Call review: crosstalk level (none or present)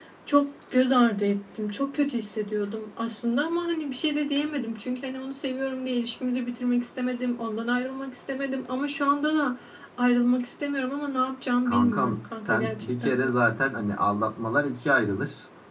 present